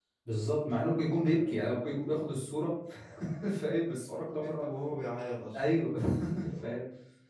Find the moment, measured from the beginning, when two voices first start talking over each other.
1 s

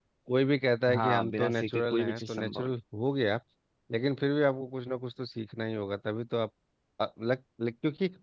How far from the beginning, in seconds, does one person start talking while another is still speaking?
1 s

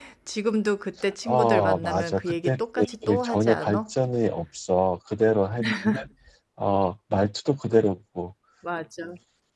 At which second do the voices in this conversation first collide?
1 s

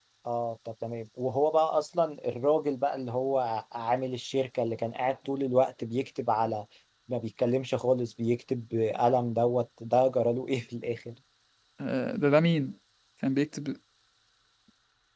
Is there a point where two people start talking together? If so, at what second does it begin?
none

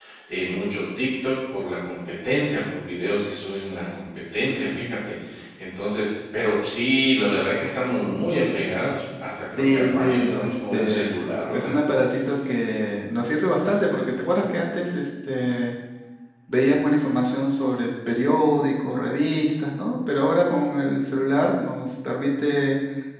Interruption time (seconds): 10 s

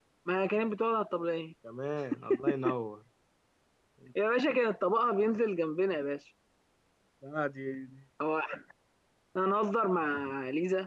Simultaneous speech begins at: none

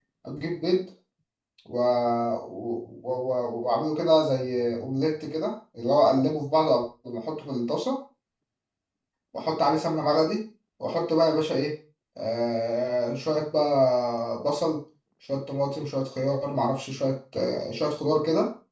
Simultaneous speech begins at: none

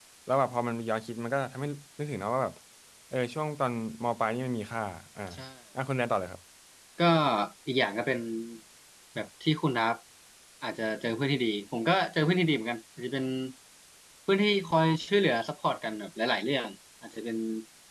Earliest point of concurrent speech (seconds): none

